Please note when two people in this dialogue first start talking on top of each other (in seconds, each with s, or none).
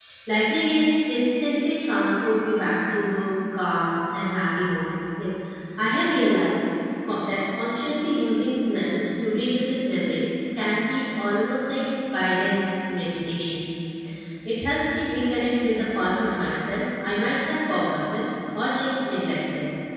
none